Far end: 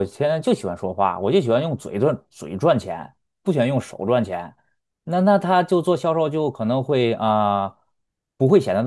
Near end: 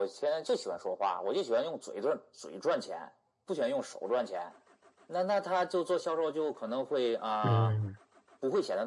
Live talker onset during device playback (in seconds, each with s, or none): 7.4 s